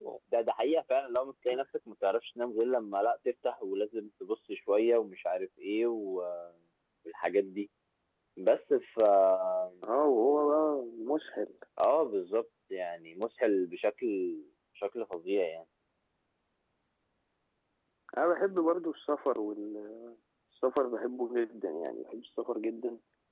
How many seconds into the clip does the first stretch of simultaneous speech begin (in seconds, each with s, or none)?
none